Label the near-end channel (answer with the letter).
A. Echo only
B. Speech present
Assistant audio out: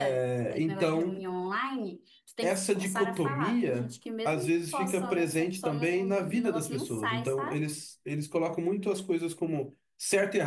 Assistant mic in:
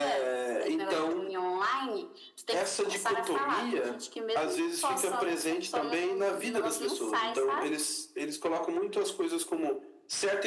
A